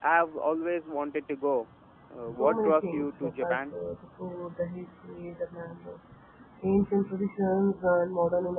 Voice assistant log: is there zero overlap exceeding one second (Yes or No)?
No